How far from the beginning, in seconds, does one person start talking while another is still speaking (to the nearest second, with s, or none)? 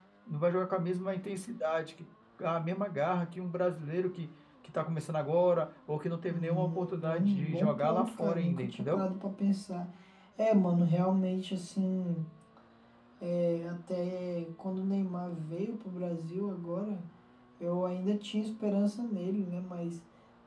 6 s